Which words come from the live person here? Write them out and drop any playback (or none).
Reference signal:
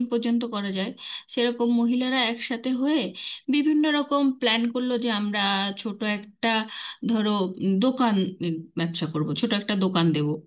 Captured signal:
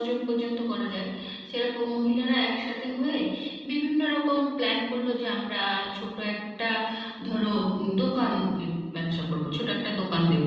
none